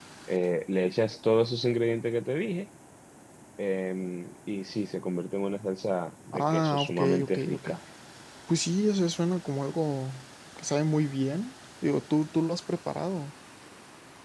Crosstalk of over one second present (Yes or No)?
Yes